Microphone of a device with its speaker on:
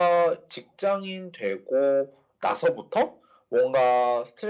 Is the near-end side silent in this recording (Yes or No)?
Yes